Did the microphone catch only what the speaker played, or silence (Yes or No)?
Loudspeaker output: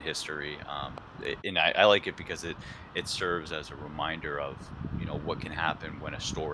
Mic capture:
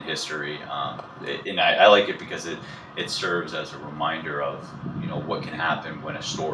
Yes